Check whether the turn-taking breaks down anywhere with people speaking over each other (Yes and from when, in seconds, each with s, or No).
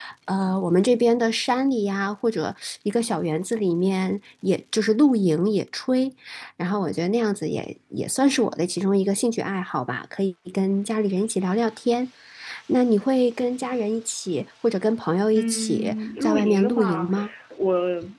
Yes, from 15.3 s